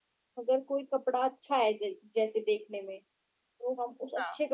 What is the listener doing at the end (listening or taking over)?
listening